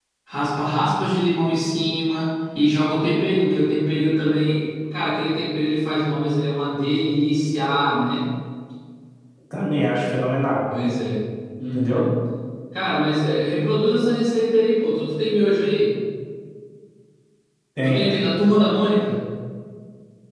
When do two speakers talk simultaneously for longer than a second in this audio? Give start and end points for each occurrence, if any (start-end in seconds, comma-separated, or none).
none